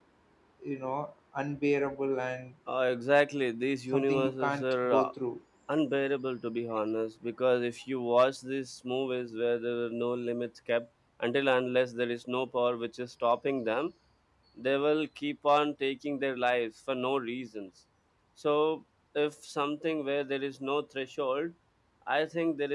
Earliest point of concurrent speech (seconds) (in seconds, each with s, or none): 3.9 s